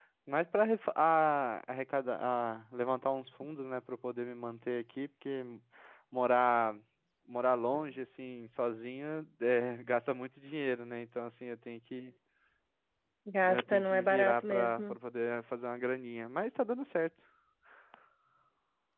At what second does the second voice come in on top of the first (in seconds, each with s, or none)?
13.4 s